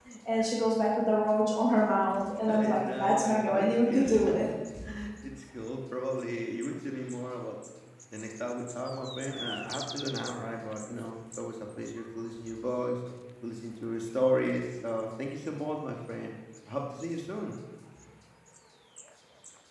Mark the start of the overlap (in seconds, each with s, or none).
2.5 s